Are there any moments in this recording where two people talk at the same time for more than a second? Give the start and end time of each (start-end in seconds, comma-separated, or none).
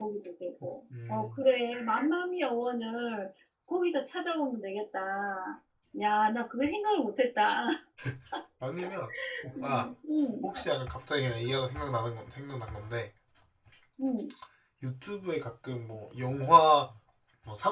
none